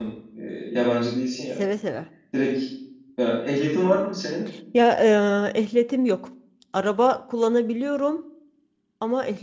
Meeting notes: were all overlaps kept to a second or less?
Yes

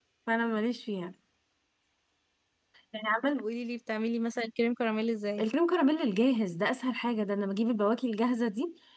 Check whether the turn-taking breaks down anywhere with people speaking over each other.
No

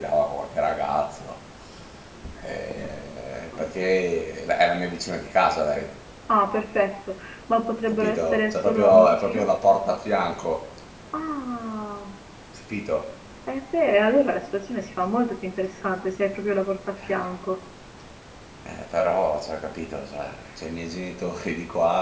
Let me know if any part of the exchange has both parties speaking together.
Yes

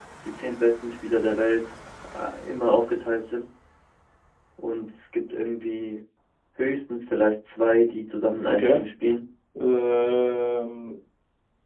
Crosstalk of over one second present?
No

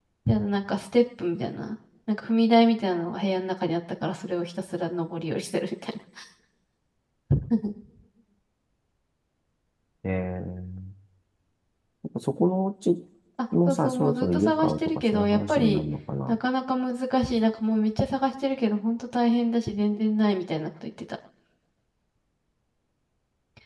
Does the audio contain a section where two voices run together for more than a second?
Yes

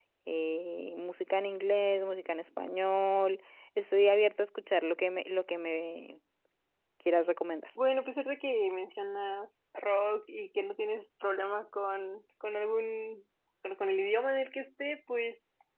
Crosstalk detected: No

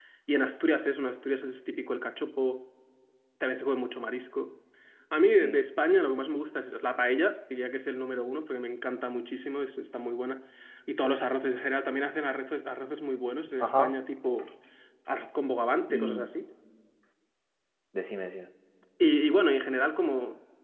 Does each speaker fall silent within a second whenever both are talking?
Yes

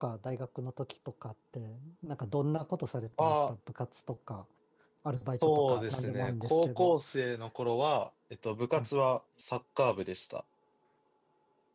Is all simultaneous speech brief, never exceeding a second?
No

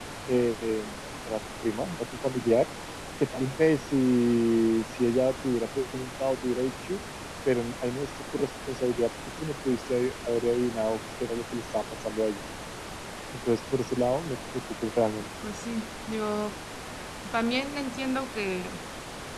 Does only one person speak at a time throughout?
Yes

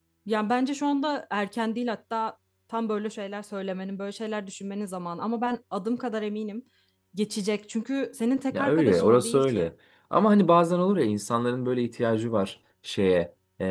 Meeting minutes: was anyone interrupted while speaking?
Yes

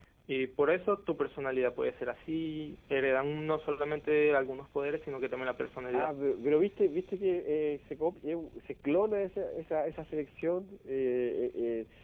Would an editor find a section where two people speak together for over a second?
No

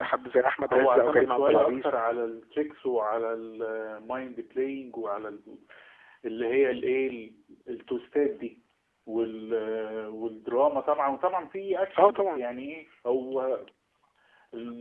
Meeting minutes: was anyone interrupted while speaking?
Yes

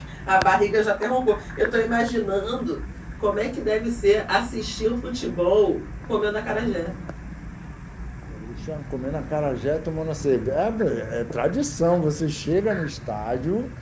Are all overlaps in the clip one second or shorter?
Yes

